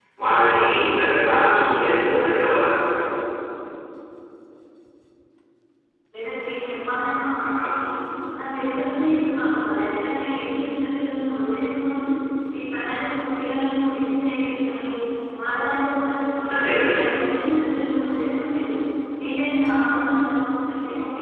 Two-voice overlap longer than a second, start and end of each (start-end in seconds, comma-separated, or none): none